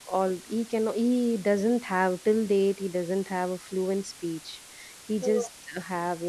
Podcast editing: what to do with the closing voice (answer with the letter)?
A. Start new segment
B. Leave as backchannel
B